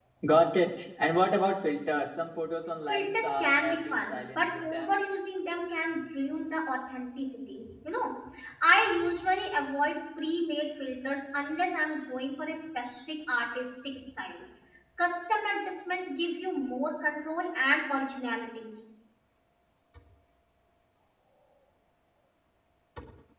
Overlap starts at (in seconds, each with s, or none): 2.9 s